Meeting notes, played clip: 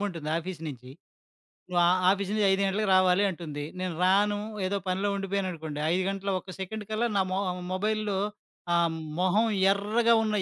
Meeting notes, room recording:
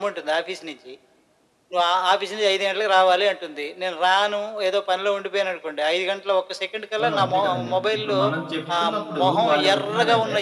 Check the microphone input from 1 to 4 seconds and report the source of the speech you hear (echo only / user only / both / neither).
echo only